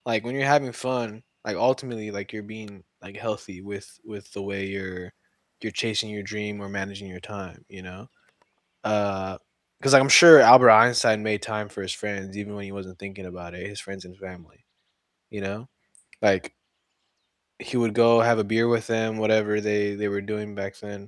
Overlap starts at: none

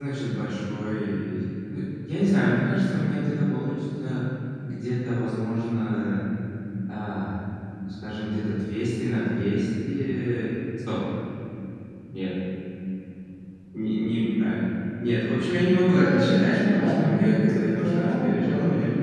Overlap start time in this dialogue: 15.9 s

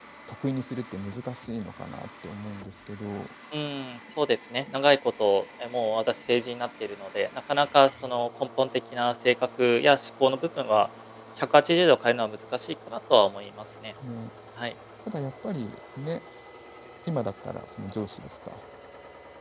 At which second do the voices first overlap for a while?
none

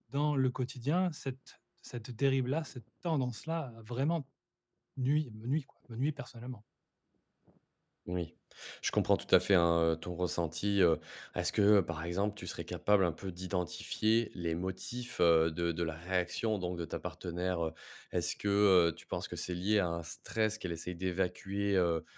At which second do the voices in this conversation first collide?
none

